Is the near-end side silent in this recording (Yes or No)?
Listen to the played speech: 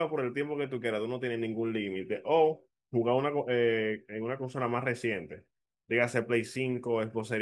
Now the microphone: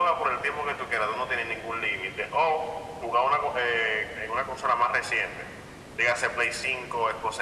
Yes